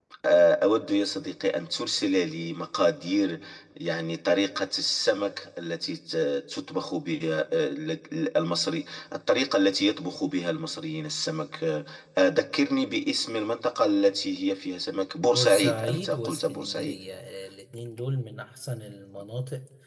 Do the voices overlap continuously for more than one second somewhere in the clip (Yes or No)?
Yes